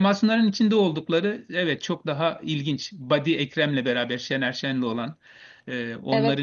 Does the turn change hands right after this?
No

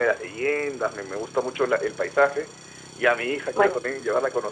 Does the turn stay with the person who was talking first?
Yes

